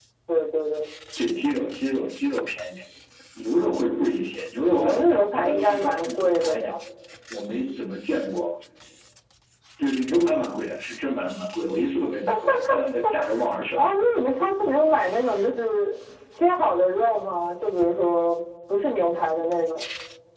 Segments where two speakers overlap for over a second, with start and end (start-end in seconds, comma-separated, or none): 4.7-6.7